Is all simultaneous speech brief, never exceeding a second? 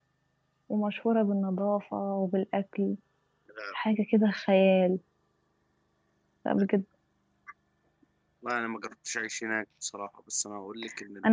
Yes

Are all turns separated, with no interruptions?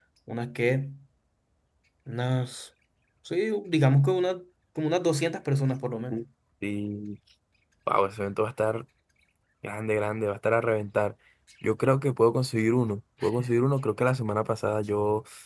Yes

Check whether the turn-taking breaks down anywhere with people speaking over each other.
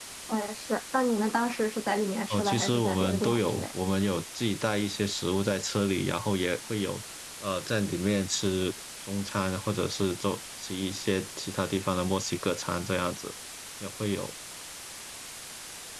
Yes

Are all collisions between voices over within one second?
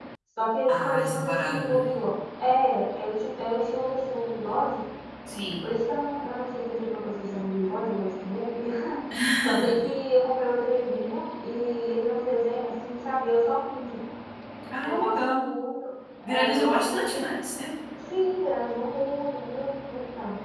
No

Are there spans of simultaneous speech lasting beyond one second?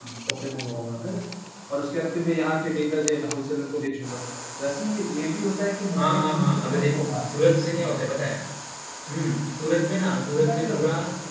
Yes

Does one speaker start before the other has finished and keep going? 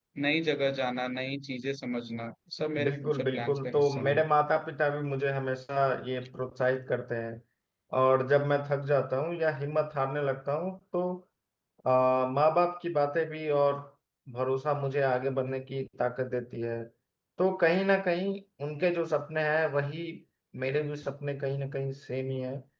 Yes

